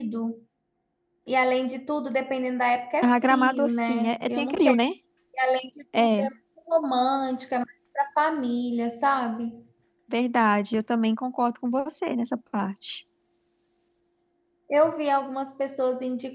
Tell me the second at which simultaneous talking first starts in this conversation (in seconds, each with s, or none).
3.0 s